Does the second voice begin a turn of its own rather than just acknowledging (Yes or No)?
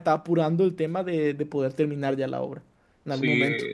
Yes